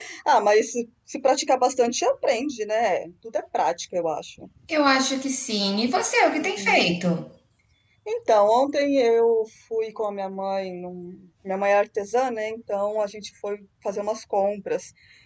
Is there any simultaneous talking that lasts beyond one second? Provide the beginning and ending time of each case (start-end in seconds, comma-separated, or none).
none